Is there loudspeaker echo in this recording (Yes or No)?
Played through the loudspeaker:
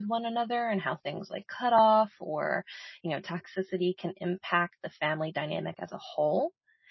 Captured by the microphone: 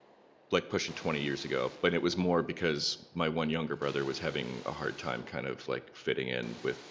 No